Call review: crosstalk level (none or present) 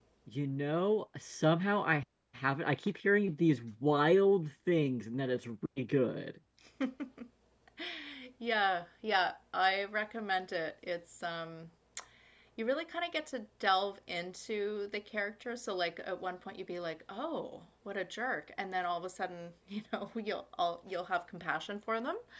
none